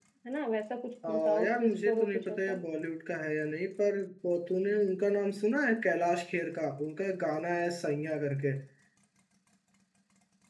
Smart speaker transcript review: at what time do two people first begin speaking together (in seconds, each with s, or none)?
1.1 s